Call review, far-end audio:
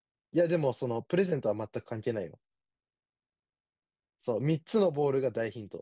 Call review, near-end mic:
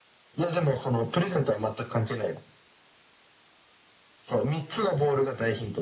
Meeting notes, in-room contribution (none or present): none